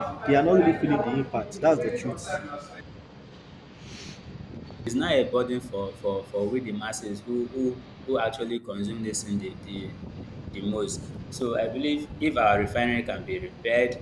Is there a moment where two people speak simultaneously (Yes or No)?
No